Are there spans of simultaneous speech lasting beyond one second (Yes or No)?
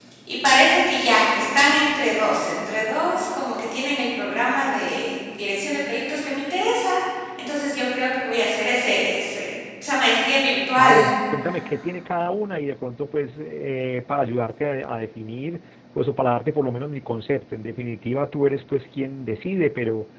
No